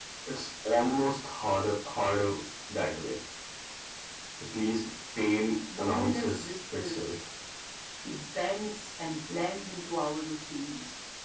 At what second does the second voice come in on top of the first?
5.7 s

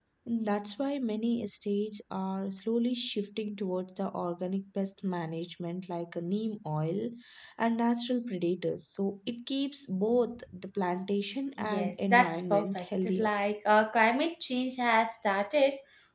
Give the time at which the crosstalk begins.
11.6 s

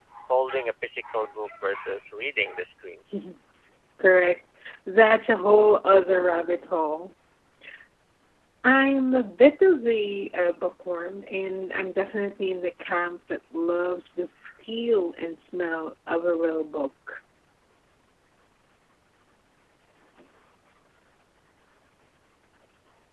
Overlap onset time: none

